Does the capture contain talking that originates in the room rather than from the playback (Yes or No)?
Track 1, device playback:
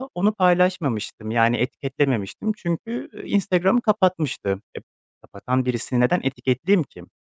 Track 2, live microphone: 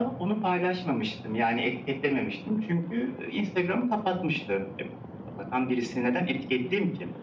No